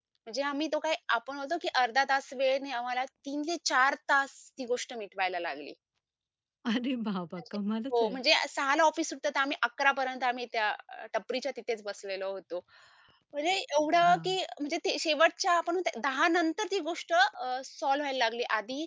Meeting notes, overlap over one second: none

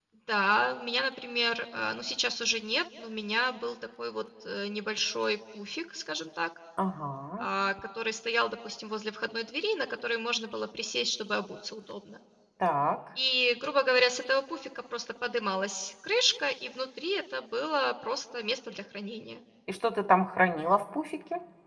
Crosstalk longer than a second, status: none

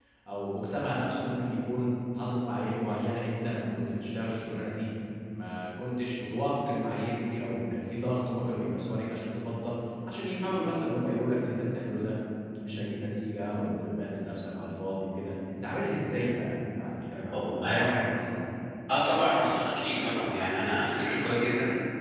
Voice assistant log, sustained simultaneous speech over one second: none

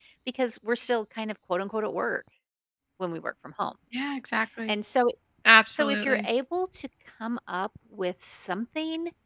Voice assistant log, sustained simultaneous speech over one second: none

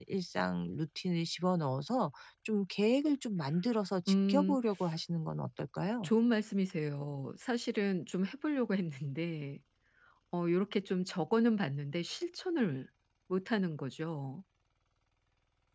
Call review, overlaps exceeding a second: none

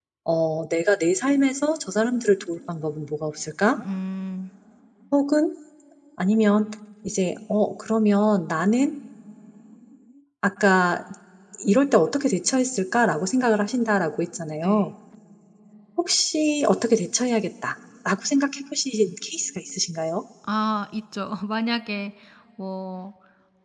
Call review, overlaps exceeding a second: none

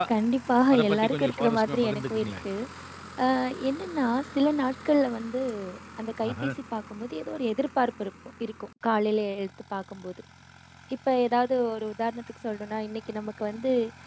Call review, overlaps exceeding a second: present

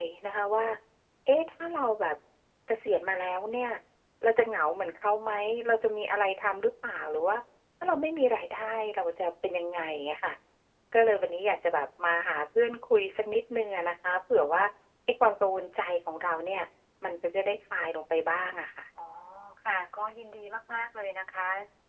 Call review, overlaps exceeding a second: none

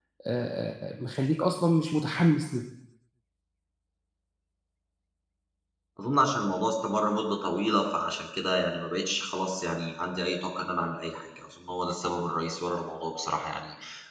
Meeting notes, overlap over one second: none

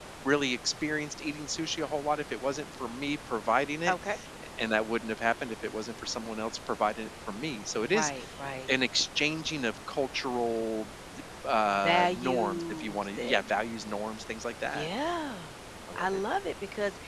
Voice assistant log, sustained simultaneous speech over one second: present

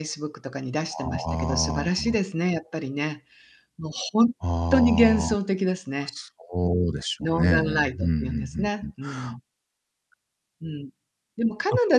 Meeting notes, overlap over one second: present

